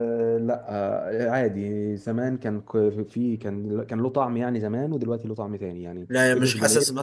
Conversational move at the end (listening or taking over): taking over